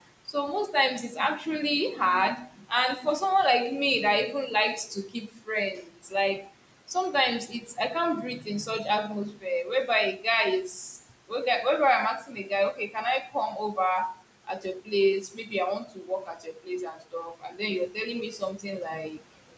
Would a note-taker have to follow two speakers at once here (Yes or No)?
No